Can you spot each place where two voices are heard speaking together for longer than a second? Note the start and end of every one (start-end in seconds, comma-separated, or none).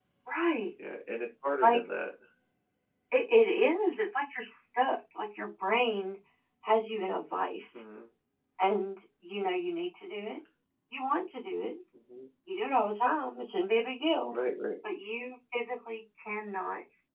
none